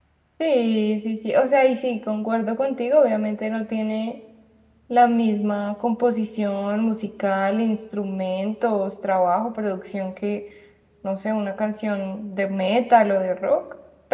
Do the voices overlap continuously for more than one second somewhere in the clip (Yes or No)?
No